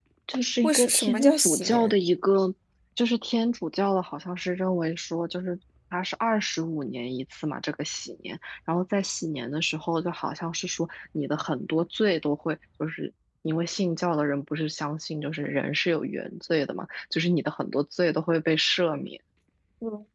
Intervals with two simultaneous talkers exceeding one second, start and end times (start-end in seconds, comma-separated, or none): 0.6-1.9